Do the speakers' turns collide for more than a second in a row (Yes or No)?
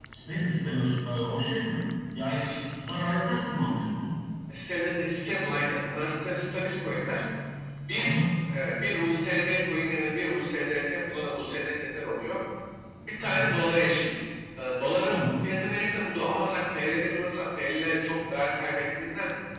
No